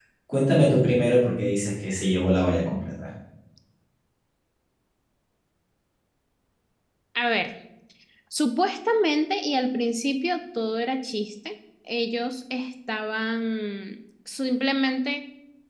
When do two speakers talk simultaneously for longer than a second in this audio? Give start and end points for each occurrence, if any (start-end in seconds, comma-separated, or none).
none